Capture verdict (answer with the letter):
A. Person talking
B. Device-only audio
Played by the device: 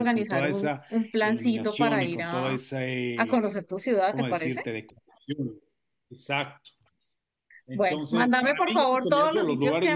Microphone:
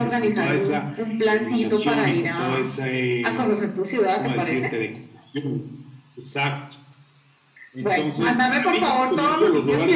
B